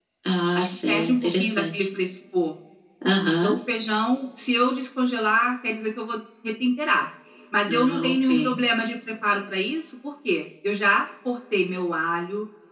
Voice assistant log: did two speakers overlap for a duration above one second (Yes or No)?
Yes